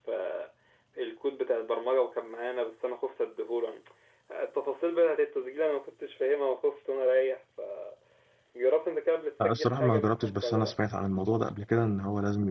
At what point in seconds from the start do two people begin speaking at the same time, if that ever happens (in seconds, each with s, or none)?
9.4 s